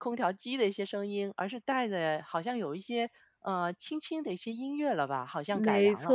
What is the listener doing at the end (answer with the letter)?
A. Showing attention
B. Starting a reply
B